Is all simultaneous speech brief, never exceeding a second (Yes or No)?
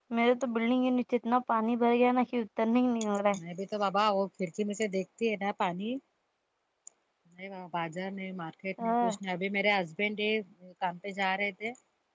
Yes